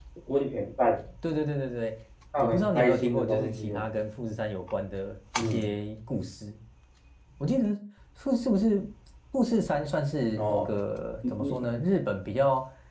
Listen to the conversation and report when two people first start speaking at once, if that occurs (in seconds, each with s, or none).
2.4 s